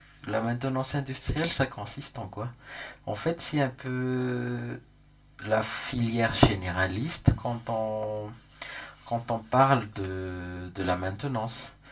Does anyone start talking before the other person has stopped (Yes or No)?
No